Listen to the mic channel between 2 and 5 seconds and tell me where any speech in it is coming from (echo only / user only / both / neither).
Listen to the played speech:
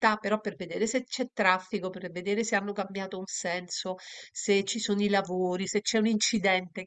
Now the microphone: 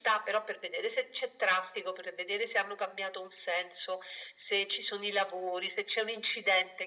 echo only